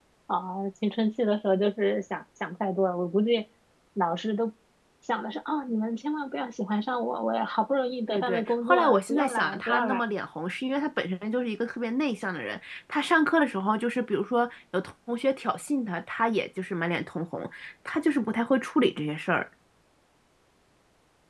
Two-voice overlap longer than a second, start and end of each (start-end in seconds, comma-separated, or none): 8.1-10.0